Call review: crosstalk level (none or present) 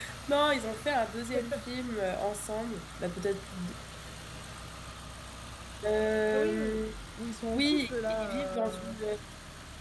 present